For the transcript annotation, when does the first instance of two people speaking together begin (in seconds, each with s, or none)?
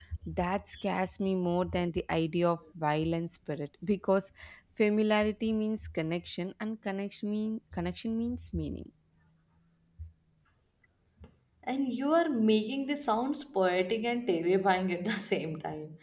none